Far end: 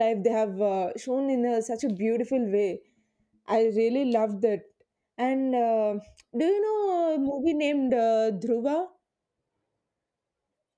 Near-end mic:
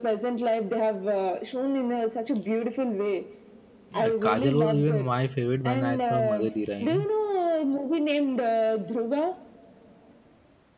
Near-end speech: present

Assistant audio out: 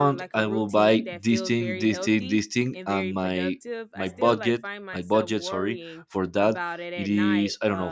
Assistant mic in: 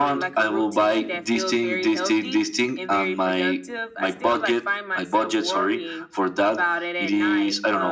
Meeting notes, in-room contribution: none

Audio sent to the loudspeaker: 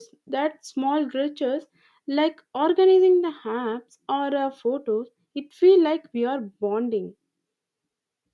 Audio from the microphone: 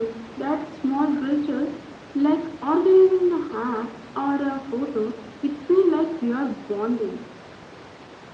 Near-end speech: none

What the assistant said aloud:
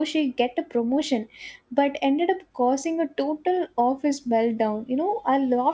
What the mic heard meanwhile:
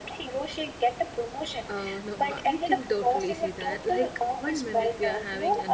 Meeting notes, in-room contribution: present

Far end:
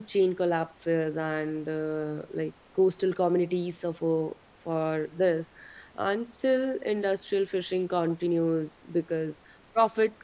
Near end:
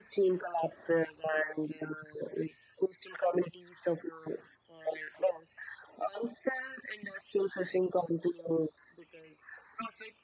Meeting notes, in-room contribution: none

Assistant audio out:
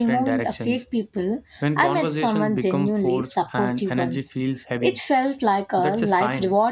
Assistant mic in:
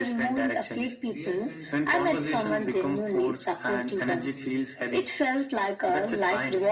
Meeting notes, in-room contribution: present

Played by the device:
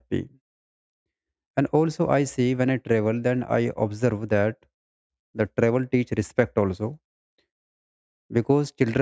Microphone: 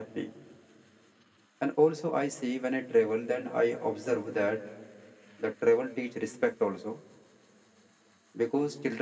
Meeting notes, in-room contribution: none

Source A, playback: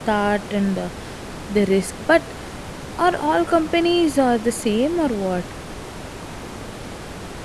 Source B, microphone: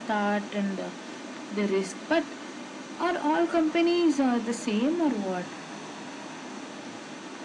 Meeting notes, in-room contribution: none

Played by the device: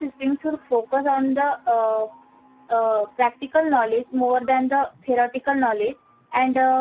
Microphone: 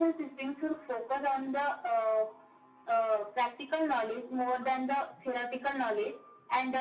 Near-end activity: none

